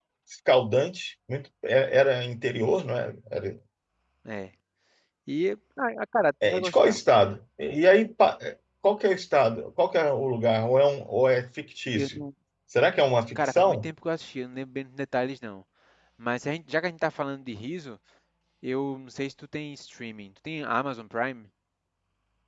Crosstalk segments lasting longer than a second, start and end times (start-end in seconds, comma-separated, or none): none